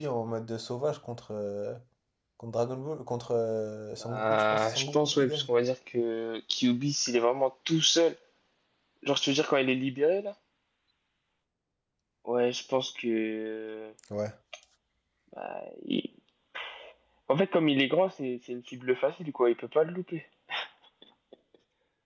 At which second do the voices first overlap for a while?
4.0 s

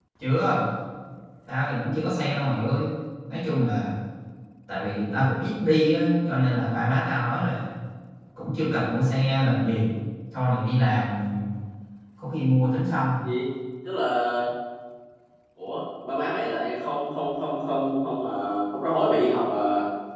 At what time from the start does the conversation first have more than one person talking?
none

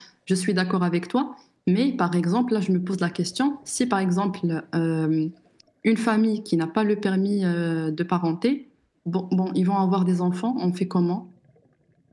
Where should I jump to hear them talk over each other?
none

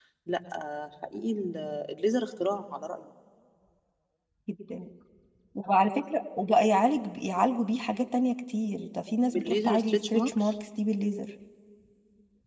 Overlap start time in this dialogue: 9.3 s

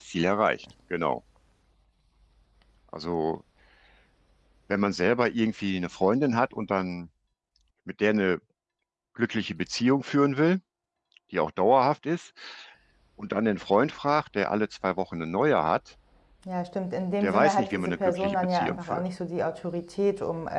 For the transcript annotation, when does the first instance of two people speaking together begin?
17.2 s

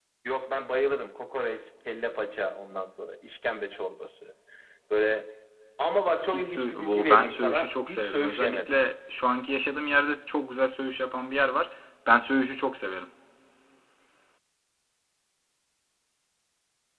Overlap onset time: 6.3 s

